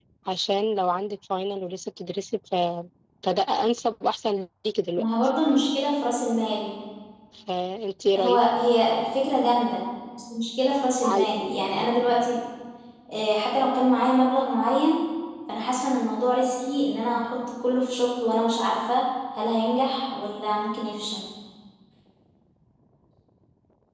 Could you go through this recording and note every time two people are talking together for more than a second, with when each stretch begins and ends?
none

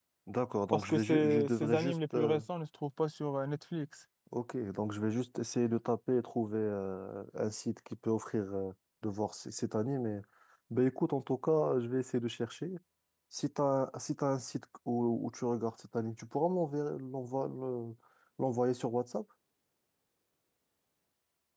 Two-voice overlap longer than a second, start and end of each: 0.7-2.4

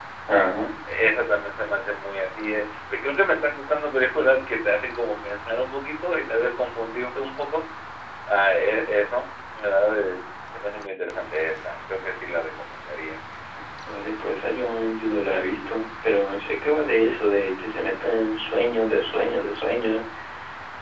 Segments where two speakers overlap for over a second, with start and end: none

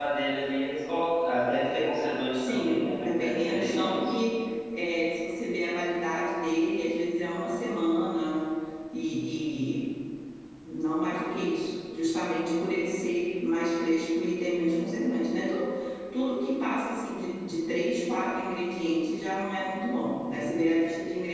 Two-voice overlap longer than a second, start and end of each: 2.3-4.0

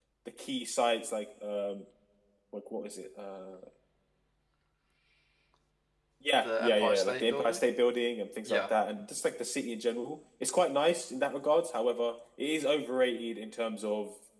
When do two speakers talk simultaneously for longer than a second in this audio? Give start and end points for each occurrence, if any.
6.4-7.6

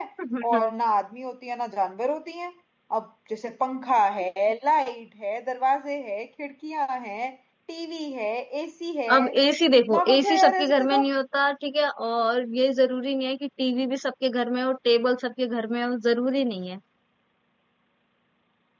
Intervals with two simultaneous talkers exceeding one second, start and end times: 9.8-11.0

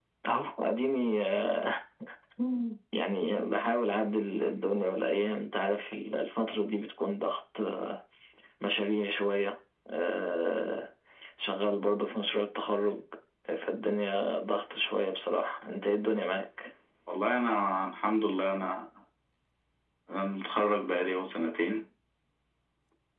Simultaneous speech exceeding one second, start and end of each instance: none

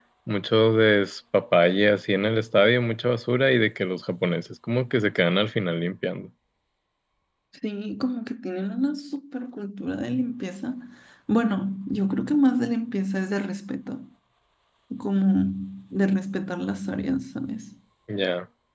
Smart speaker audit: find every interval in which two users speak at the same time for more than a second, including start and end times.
none

